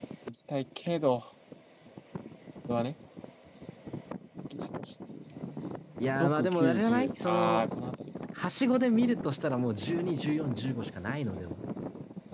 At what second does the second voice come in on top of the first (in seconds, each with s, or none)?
6.2 s